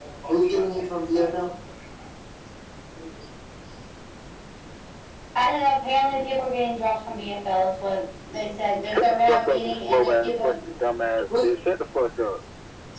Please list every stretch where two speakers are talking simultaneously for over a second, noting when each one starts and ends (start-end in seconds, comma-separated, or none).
8.8-10.5